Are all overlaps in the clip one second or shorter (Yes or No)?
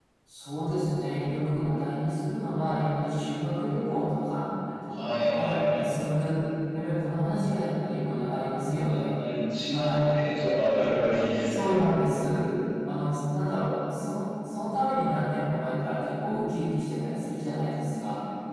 No